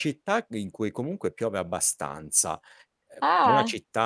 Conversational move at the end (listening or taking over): listening